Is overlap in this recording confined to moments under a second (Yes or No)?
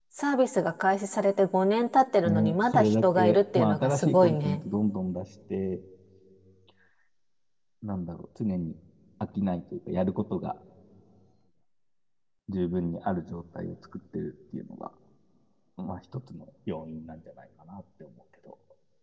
No